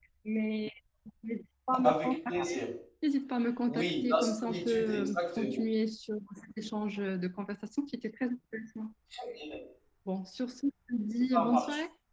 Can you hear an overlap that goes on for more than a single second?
Yes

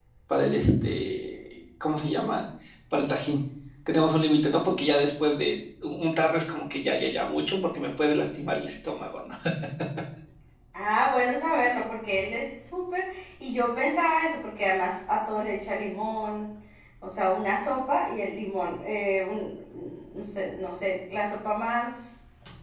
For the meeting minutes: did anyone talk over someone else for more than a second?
No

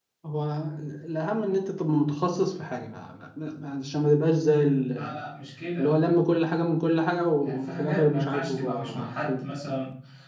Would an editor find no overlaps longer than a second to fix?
No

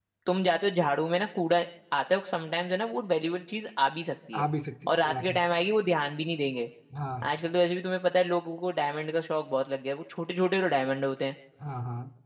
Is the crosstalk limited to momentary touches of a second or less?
Yes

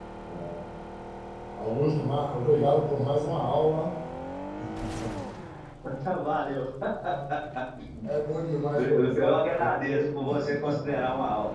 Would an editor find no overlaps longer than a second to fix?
No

